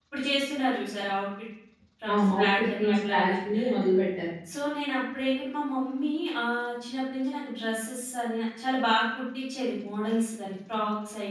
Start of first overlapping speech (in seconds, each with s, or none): 2.1 s